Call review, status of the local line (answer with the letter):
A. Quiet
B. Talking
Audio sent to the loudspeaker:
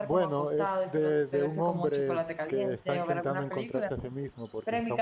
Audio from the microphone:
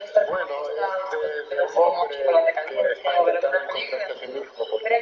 A